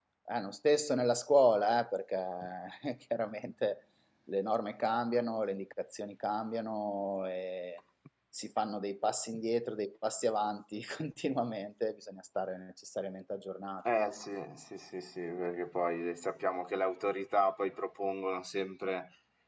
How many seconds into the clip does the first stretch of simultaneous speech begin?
none

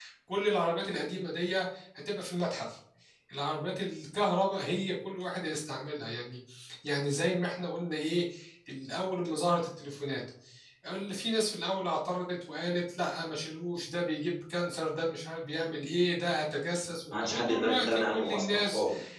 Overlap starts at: 17.1 s

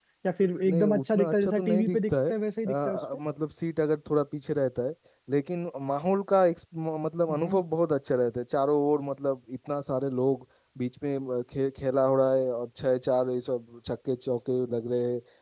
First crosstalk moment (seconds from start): 0.6 s

